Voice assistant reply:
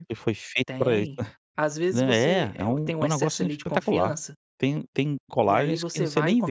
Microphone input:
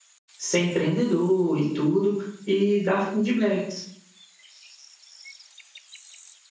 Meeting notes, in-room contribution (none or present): present